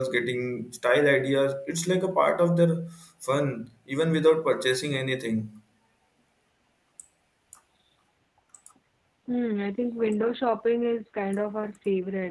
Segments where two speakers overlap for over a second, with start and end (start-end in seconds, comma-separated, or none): none